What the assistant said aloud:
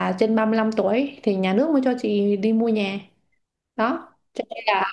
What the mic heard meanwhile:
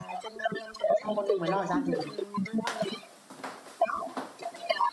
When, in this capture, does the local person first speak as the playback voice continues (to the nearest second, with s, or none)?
1 s